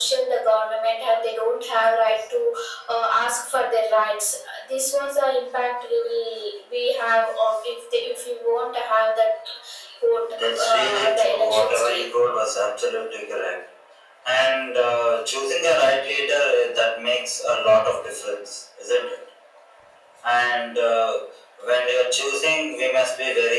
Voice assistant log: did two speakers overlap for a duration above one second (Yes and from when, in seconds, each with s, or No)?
Yes, from 10.3 s